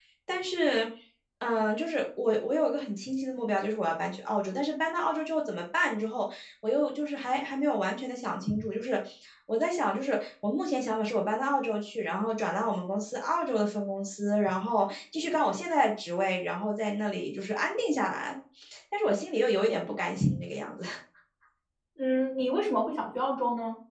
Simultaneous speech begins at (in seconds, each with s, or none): none